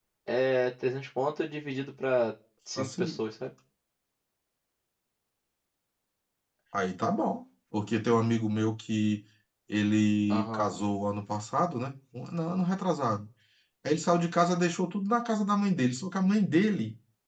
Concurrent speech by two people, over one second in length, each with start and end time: none

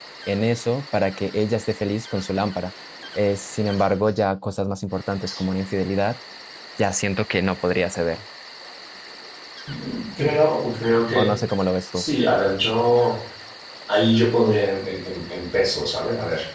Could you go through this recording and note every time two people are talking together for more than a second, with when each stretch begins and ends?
none

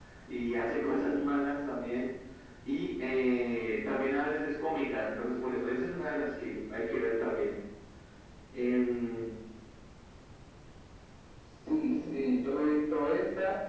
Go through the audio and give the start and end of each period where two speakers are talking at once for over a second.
none

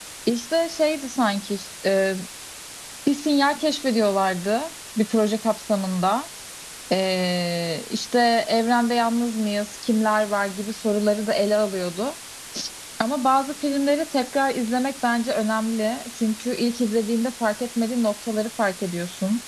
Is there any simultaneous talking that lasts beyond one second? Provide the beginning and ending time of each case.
none

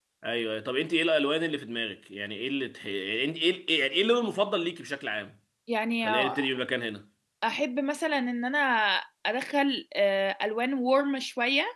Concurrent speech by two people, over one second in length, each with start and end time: none

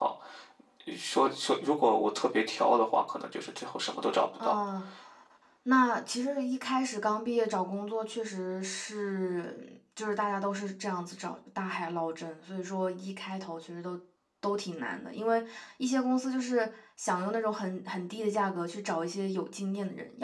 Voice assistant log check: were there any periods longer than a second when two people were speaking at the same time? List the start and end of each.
none

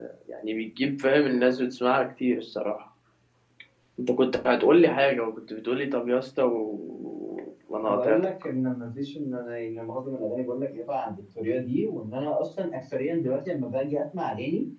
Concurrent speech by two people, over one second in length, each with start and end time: none

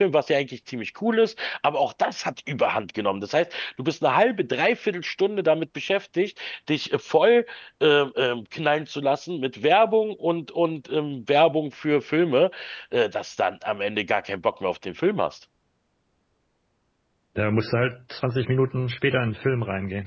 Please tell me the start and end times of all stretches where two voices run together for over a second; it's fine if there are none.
none

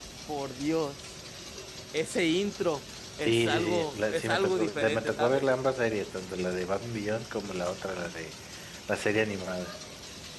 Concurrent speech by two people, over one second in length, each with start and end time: 3.2-5.4

